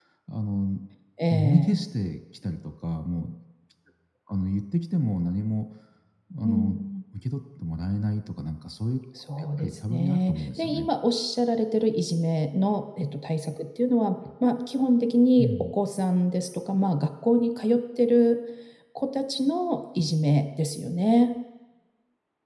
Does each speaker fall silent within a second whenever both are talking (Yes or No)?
No